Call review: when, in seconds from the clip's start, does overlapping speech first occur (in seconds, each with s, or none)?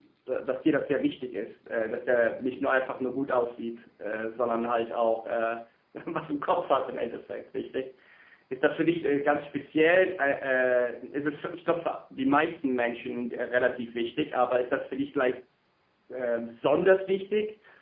none